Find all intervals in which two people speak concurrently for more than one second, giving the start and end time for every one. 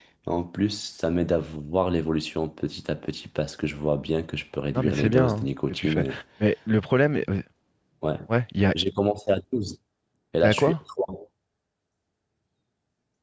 4.7-6.0

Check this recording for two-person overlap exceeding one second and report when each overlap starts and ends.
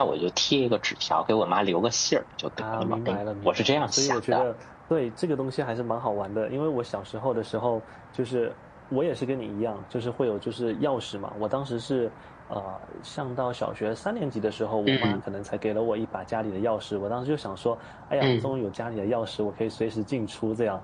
2.7-4.4

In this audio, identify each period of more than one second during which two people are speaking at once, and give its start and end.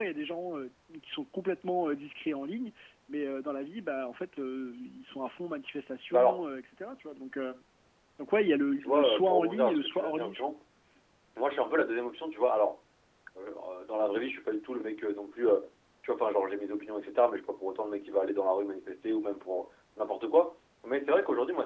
8.8-10.4

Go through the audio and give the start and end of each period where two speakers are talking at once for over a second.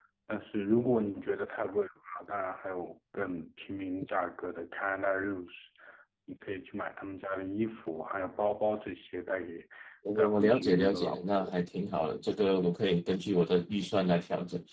10.2-11.6

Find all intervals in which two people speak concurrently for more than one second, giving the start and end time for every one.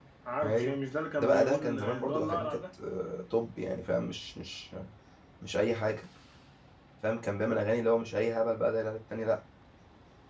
1.2-2.6

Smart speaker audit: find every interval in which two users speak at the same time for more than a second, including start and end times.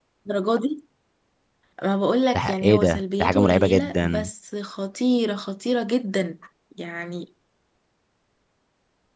2.3-4.3

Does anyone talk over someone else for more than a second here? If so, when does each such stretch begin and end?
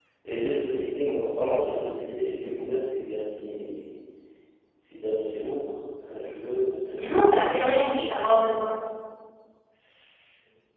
7.0-8.3

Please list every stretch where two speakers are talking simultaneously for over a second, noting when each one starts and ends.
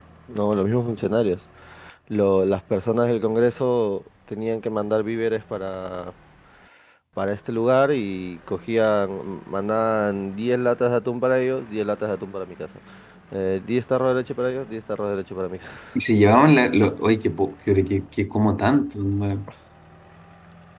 none

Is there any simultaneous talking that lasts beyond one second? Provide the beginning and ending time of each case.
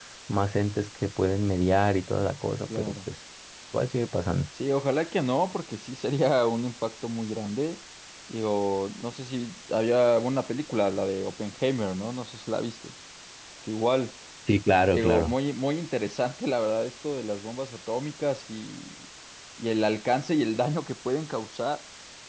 none

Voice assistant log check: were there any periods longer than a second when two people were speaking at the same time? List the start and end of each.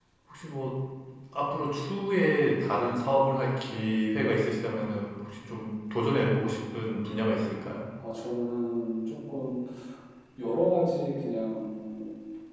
none

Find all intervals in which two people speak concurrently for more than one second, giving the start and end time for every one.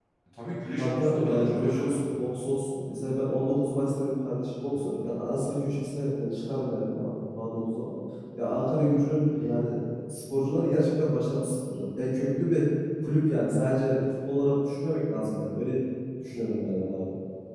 0.8-2.1

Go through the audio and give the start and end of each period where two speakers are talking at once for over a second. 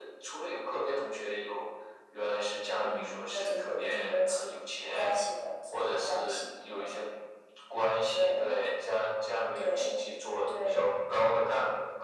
2.8-4.5, 5.7-7.0

